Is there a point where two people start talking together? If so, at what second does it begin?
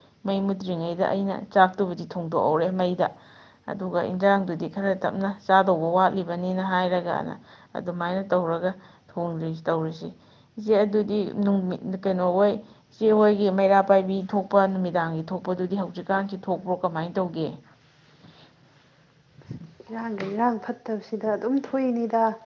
none

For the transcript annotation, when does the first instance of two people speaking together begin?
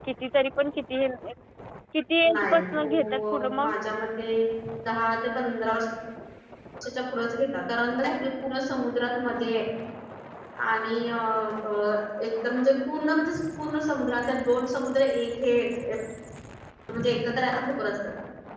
2.2 s

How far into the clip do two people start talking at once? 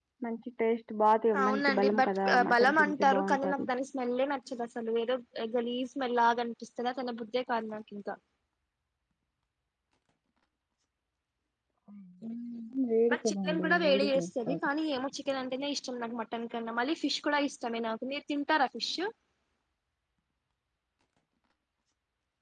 1.4 s

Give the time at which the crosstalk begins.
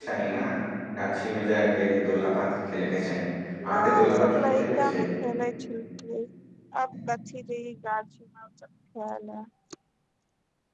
3.6 s

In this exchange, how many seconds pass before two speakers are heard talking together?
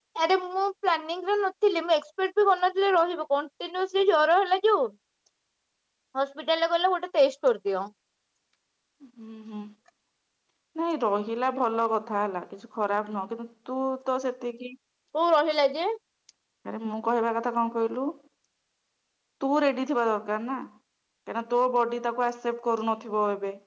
none

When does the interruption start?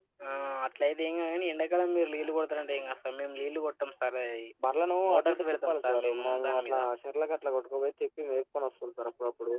5.1 s

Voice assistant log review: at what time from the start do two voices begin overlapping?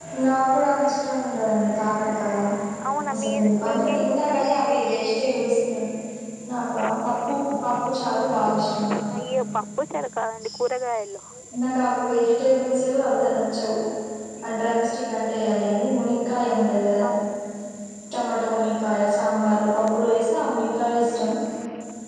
3.1 s

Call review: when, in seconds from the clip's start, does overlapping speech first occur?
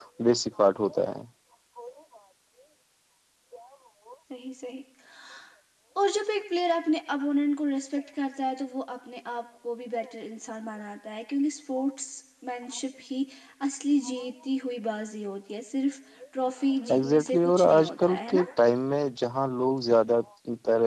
16.9 s

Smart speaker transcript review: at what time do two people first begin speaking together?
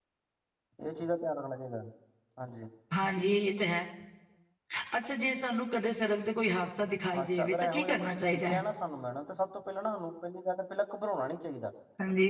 7.1 s

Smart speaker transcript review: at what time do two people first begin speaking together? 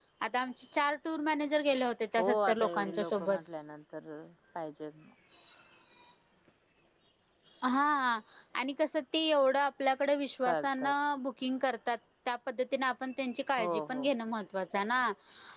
2.2 s

